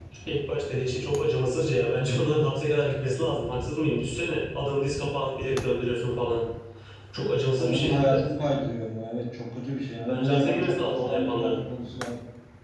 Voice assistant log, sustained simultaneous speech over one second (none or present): present